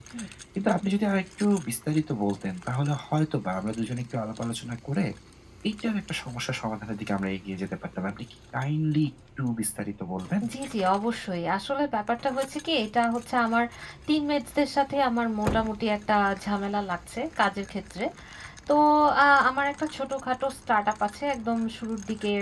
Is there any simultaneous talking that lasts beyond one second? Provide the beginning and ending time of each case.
none

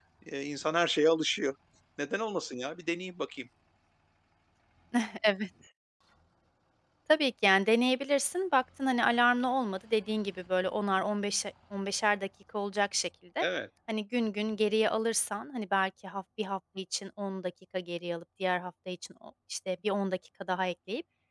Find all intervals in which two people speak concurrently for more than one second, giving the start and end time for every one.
none

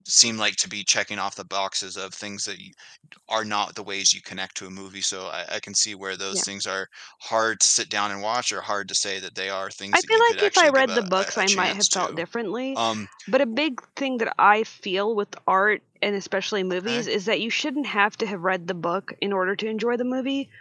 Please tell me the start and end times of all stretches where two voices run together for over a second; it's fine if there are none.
9.9-12.2

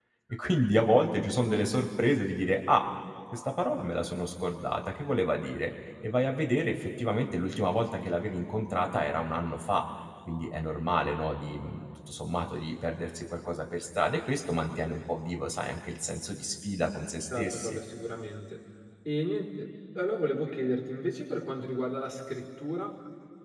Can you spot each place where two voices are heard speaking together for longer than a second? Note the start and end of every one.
none

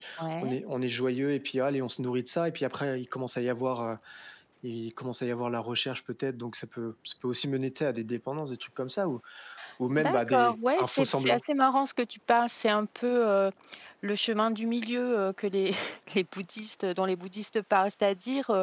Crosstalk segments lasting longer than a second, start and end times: 10.0-11.4

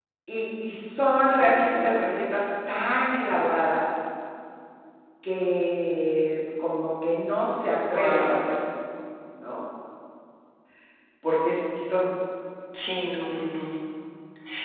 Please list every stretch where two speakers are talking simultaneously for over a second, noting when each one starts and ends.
none

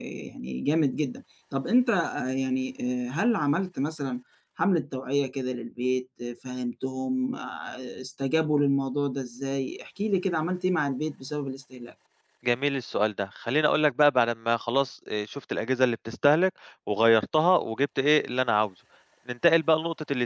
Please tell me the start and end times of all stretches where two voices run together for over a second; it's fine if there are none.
none

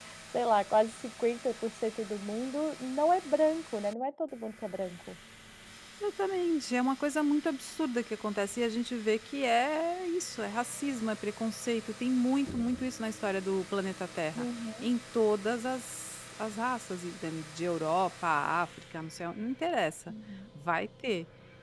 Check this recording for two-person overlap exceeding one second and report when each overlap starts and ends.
none

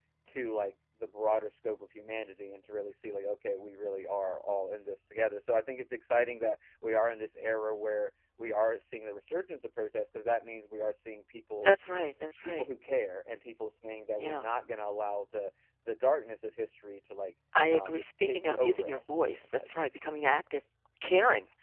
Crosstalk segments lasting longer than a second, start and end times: 17.7-19.7

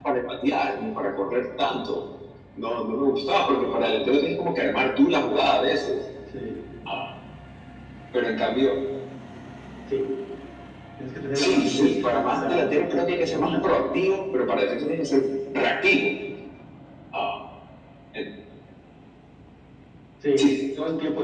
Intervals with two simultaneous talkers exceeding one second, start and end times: 11.3-13.8

